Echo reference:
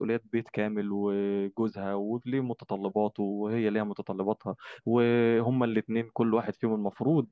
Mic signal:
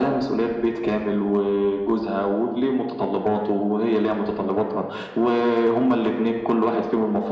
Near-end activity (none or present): none